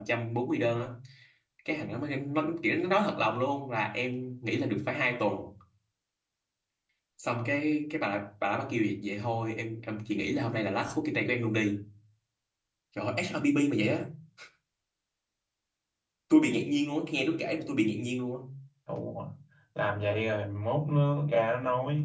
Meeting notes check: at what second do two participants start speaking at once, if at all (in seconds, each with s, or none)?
none